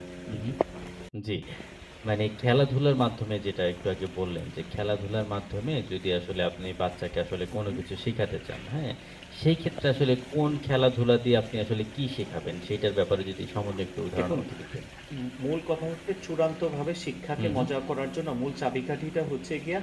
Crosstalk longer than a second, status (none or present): none